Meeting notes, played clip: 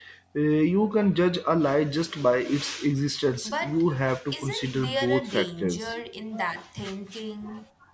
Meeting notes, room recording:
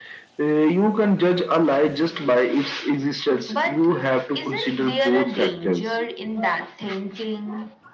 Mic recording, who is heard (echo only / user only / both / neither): echo only